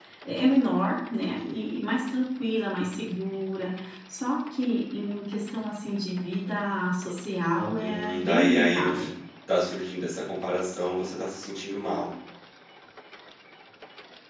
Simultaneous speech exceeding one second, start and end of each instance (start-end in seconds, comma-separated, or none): 7.8-9.1